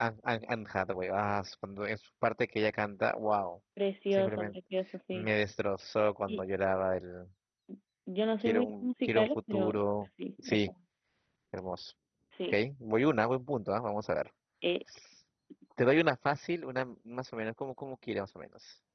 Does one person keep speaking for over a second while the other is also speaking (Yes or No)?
Yes